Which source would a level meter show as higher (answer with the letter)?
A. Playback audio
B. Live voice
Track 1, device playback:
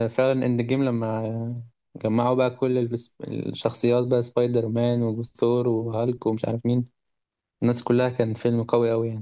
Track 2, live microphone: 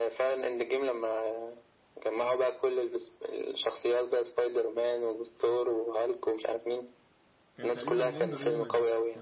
A